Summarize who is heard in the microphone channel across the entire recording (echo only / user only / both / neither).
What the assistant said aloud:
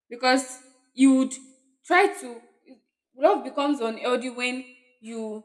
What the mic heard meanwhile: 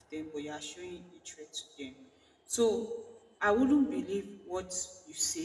user only